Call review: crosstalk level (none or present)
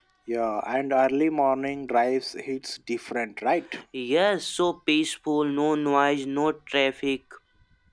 none